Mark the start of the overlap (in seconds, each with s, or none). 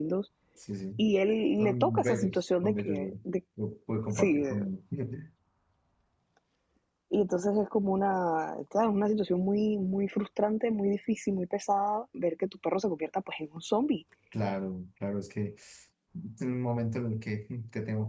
1.6 s